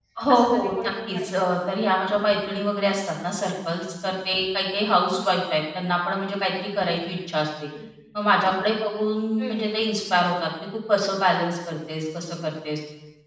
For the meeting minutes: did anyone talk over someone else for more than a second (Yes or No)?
Yes